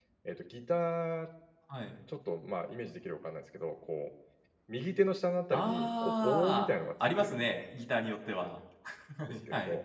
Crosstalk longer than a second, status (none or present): present